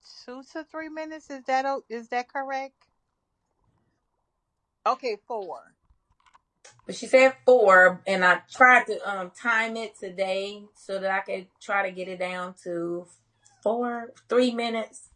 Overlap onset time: none

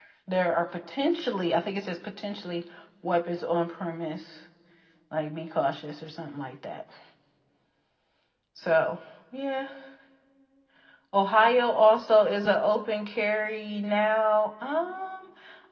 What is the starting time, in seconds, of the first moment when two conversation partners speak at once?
none

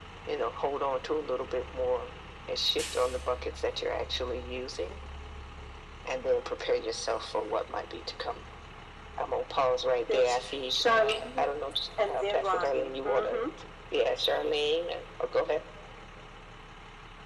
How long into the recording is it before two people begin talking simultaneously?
10 s

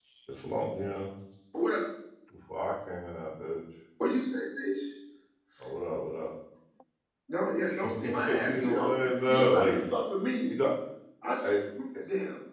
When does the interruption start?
8 s

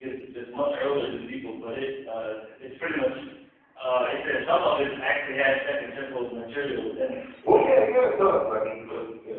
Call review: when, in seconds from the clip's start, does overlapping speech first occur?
none

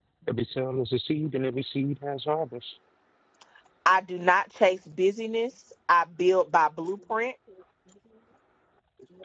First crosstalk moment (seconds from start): none

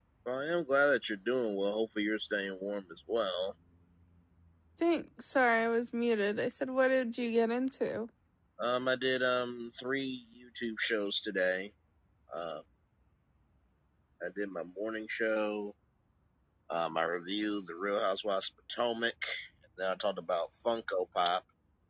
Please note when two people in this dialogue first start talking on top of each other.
none

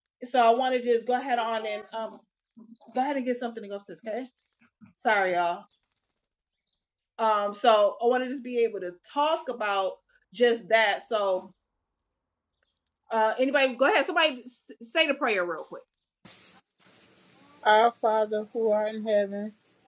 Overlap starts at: none

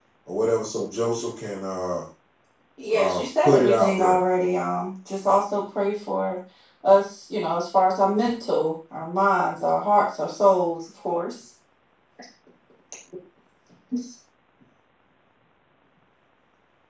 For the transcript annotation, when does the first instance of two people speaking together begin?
3 s

